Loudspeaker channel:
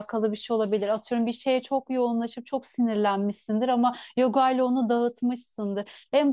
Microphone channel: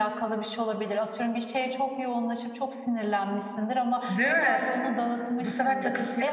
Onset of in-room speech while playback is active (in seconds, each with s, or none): 4.1 s